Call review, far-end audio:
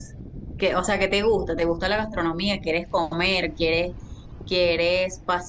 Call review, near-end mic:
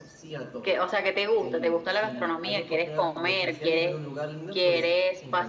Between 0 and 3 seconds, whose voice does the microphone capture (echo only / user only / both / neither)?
both